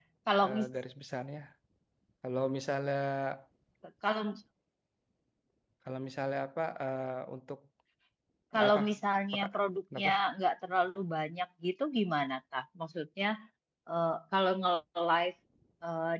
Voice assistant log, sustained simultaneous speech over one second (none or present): none